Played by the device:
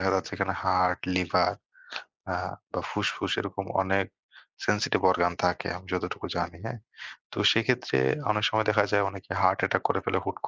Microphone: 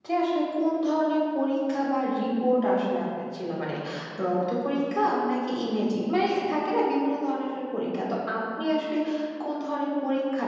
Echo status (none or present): none